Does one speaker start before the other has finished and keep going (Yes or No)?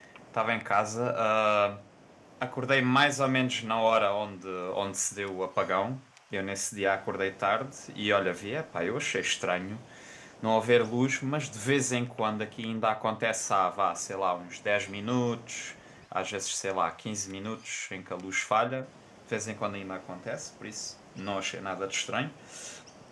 No